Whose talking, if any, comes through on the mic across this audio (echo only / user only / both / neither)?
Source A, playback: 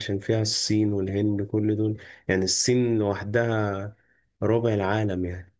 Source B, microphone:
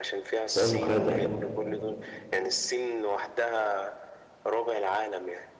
both